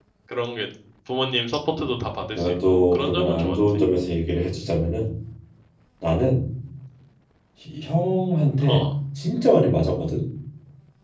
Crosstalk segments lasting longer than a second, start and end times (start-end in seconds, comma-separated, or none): 2.4-3.5